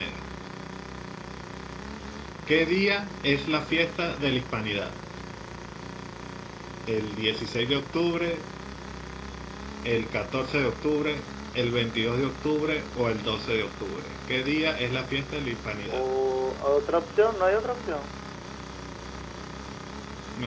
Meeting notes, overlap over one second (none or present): none